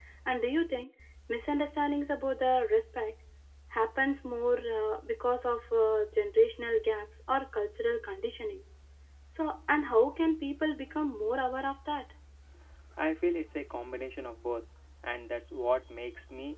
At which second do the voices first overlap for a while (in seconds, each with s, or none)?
none